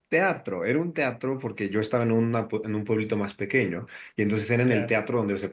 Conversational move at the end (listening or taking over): listening